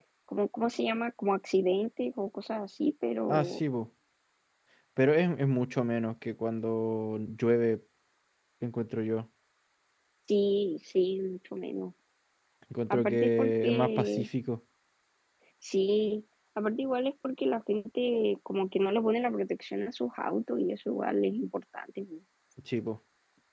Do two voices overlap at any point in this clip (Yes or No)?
Yes